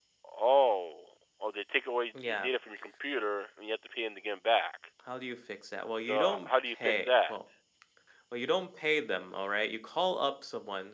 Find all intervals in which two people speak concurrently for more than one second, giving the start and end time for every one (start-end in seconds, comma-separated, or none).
6.0-7.3